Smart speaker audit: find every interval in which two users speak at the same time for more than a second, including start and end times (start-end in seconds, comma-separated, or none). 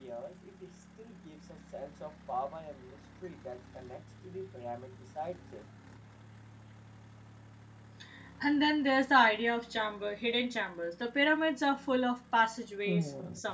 none